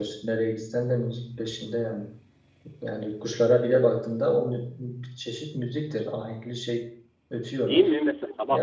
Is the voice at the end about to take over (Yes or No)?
Yes